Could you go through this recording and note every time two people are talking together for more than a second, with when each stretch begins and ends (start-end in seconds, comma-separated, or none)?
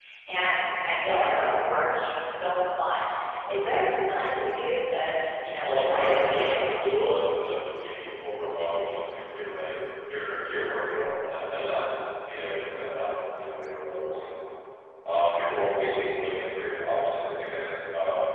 5.6-7.3